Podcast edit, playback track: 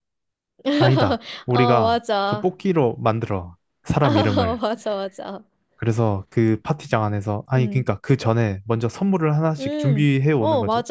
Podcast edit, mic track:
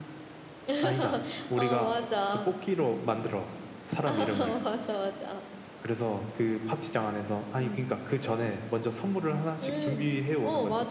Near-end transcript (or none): none